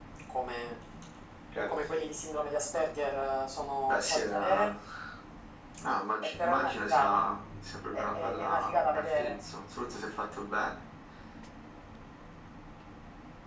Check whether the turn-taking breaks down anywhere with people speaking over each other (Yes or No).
Yes